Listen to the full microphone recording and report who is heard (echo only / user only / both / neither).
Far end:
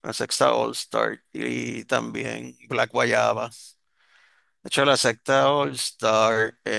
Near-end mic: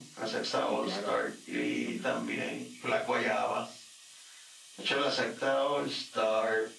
both